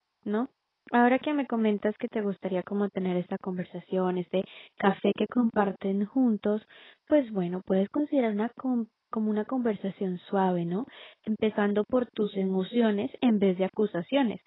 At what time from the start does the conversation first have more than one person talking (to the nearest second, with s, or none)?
none